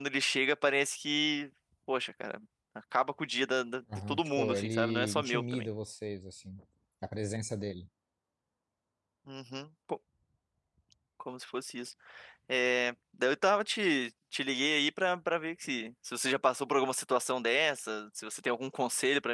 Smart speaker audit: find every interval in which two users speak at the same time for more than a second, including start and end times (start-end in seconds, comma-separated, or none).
4.1-5.7